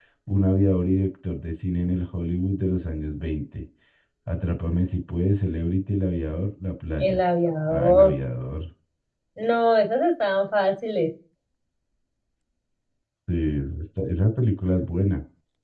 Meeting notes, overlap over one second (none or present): none